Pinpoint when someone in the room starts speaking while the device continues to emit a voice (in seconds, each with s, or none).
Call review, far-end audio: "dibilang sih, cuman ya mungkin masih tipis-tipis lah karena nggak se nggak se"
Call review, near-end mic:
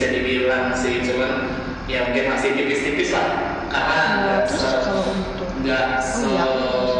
4.1 s